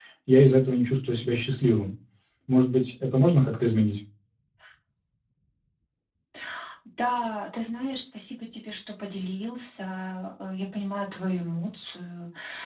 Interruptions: none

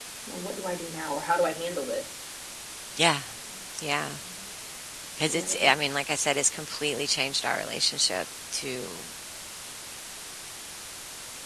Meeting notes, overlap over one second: none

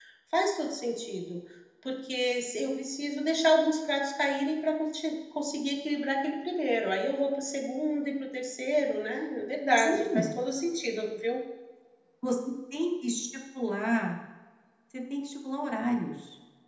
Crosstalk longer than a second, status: none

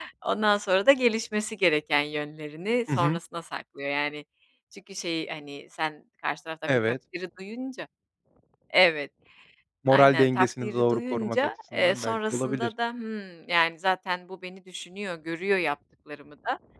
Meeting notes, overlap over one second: present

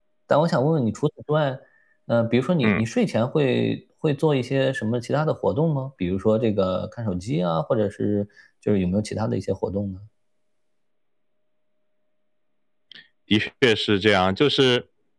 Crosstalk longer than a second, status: none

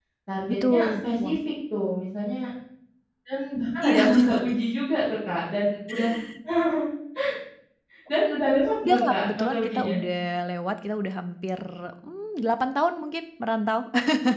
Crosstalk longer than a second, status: present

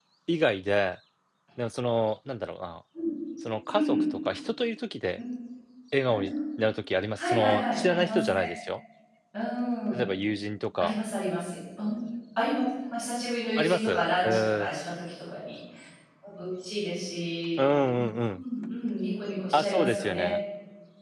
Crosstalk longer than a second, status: present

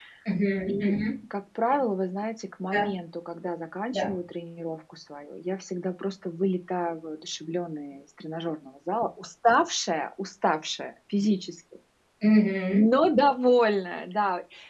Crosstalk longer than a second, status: none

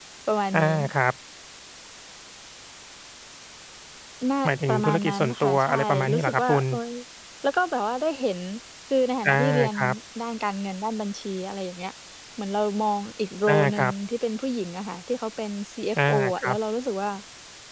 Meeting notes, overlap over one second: present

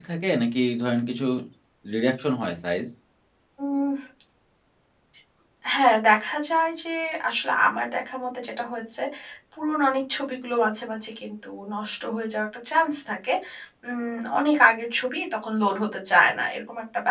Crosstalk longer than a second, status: none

